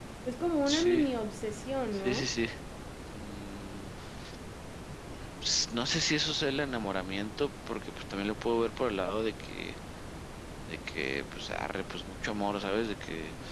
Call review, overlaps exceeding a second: none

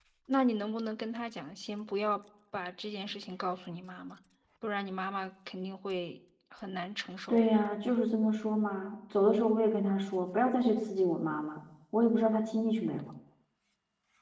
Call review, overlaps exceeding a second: none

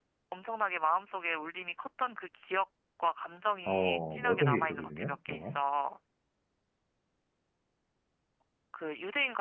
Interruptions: present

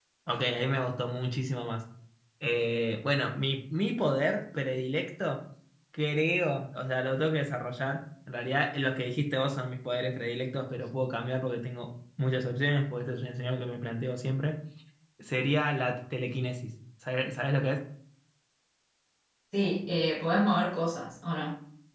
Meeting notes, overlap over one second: none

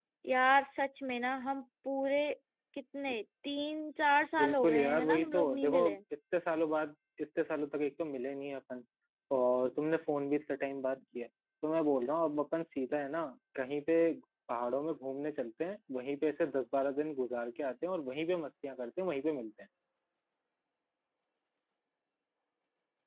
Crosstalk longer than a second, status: present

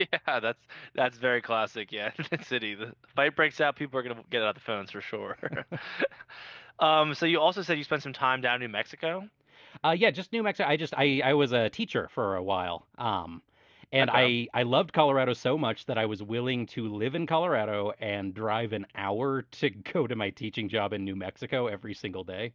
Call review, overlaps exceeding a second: none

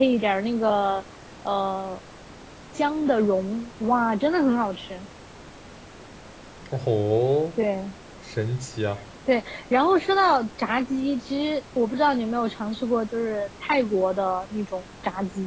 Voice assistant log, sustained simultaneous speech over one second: none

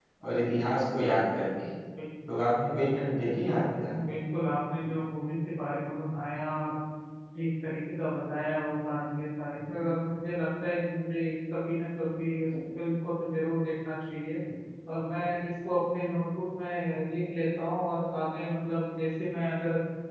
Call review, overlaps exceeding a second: none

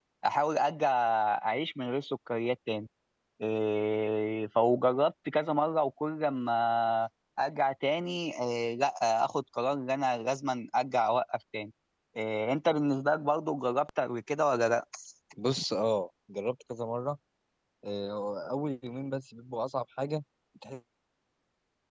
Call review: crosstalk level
none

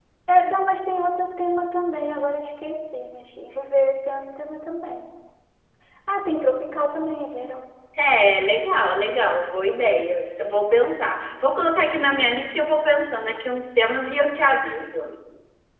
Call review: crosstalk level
none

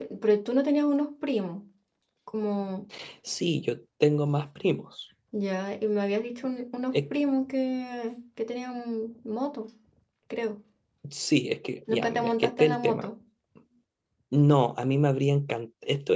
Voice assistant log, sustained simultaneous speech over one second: present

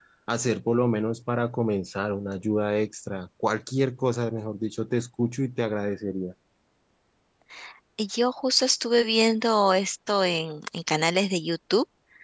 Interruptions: none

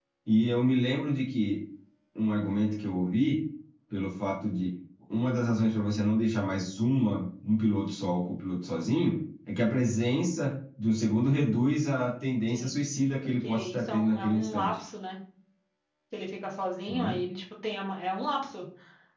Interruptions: present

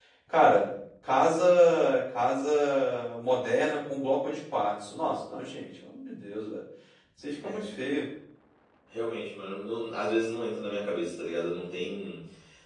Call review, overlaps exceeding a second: none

